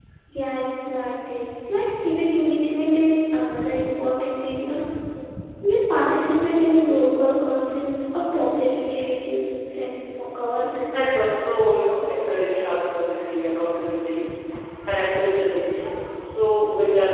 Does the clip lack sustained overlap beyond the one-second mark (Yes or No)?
Yes